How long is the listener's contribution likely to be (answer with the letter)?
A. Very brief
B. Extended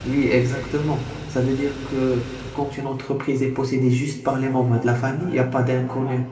A